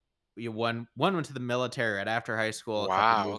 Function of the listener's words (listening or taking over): listening